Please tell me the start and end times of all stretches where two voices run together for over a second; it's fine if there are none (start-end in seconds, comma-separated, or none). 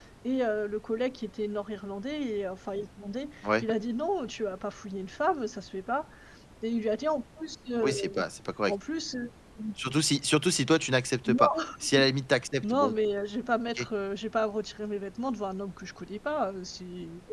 none